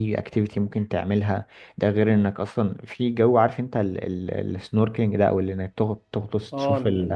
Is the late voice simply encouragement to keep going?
No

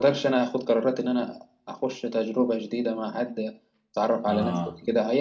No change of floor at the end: Yes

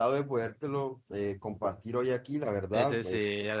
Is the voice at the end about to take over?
Yes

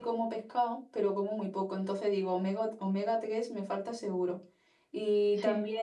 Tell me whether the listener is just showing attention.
Yes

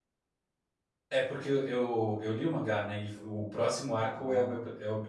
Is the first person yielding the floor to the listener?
No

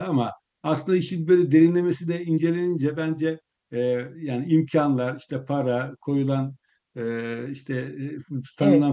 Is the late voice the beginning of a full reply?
No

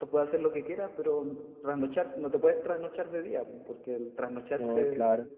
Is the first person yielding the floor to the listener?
No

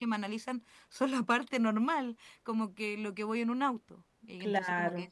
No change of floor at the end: Yes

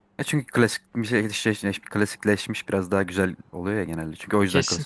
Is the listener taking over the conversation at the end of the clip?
Yes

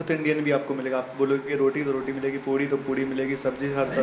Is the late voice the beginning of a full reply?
No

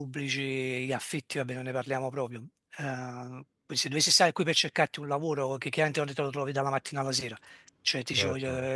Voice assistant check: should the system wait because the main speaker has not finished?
No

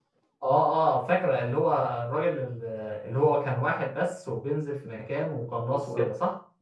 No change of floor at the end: No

